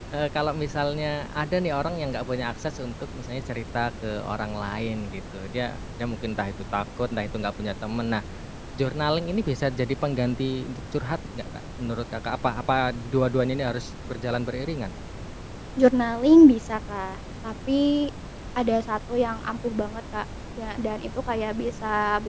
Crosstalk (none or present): none